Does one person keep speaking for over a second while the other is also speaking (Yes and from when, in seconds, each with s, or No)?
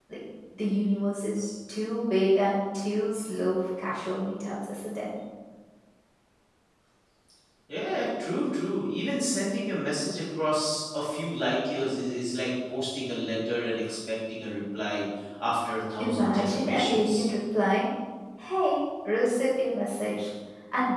Yes, from 16.0 s